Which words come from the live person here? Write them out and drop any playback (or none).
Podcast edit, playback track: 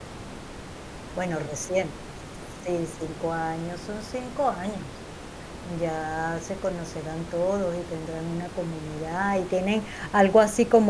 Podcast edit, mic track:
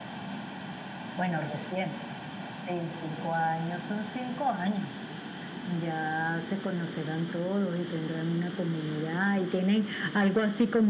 none